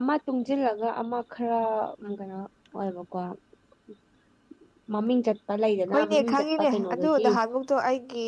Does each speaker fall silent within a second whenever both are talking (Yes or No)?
No